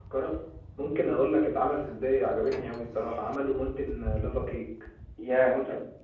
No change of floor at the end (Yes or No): No